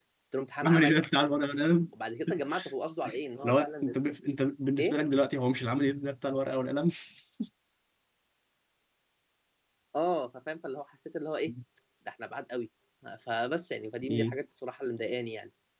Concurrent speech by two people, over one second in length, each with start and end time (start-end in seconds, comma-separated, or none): none